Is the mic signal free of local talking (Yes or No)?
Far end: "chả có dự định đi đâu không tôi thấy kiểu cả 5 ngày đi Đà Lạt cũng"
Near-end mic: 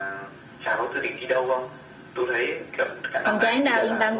No